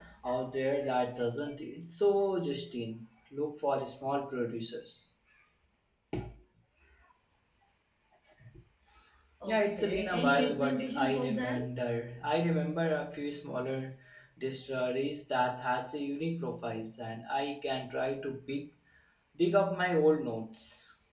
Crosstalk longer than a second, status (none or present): present